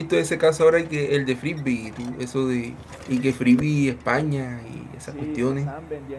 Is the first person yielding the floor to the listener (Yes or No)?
Yes